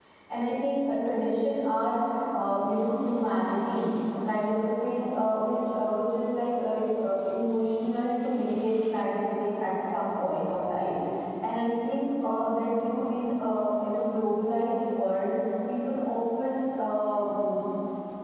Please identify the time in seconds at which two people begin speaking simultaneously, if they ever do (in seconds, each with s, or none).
none